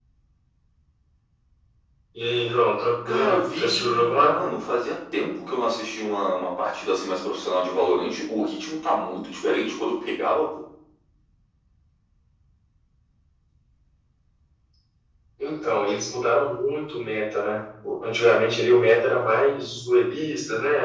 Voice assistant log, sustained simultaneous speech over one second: present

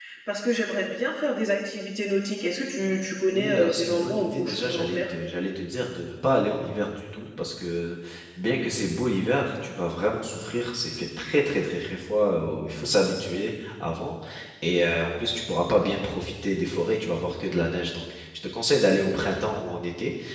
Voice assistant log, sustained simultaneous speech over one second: present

